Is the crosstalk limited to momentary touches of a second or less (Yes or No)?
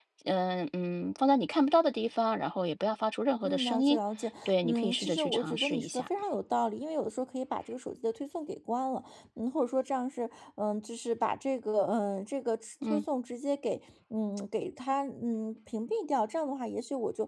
No